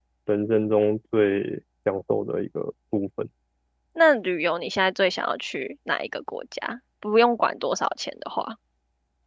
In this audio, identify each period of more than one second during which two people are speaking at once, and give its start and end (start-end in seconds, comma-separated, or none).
none